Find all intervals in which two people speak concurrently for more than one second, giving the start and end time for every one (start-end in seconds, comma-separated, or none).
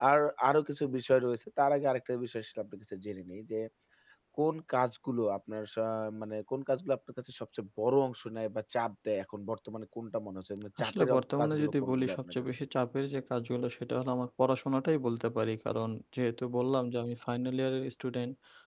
10.8-12.4